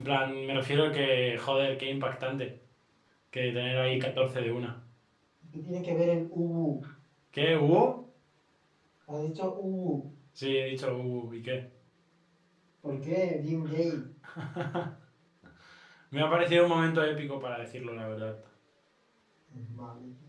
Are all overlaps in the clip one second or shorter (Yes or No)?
Yes